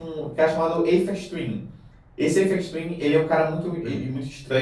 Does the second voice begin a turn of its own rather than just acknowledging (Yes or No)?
No